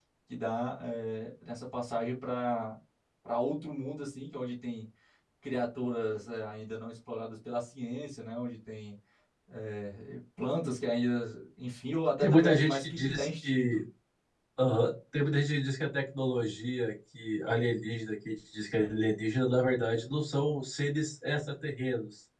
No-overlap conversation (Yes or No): No